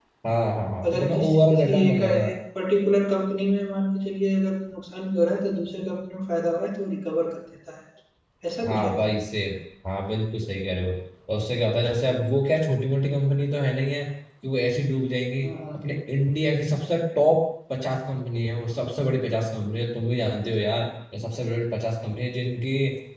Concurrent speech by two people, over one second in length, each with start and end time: 0.8-2.2

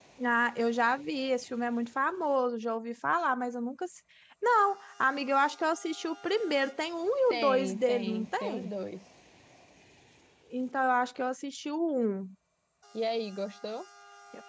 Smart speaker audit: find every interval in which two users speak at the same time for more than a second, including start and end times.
7.3-8.7

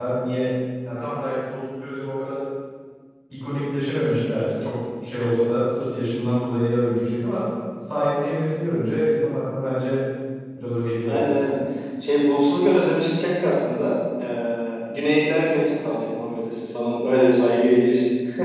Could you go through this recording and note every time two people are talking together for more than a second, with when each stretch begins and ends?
none

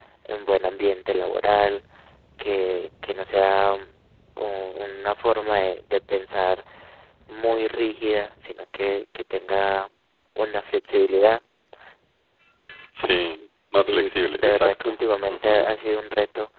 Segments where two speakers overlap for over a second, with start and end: 13.8-15.7

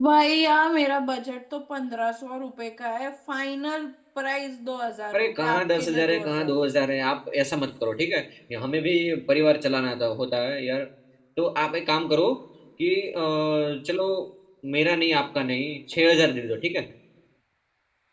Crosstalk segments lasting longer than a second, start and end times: 5.1-6.9

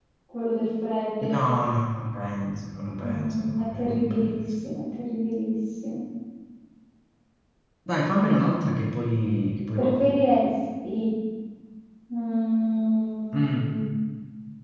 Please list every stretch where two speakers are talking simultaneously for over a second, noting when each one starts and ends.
3.0-4.4

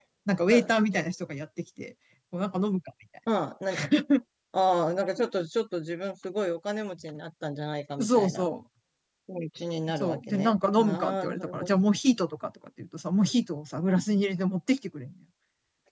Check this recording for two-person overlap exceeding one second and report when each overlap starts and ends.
9.9-11.7

